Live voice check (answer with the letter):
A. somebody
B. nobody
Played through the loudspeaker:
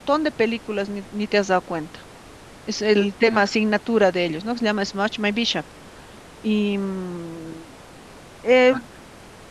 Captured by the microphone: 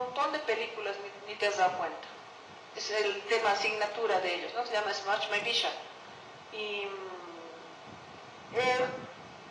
B